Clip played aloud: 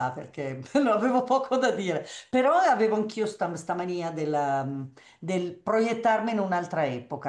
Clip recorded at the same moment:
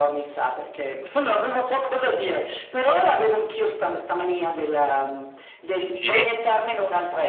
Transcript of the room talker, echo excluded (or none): sì,